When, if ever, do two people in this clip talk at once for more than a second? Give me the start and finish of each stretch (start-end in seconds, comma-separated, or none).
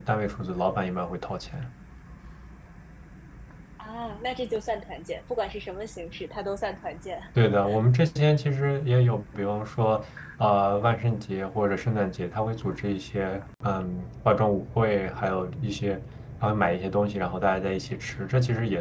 none